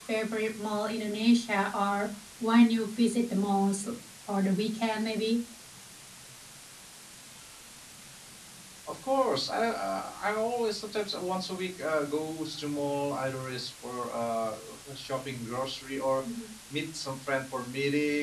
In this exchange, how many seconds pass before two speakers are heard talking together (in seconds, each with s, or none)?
none